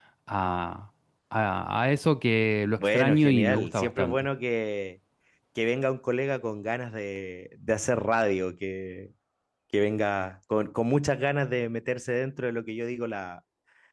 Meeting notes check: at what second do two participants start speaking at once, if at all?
2.8 s

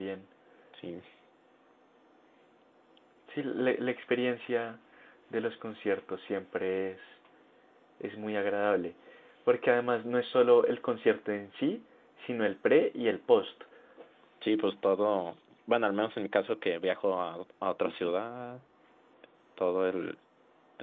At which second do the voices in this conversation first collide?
none

